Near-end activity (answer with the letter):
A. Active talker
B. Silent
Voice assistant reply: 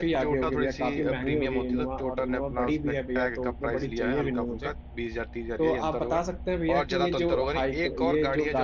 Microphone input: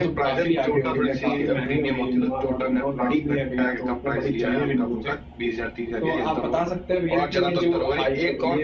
B